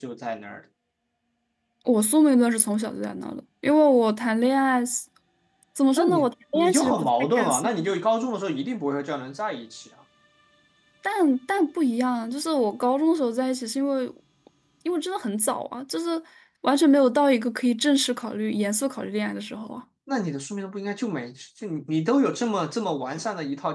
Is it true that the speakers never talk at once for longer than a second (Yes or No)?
No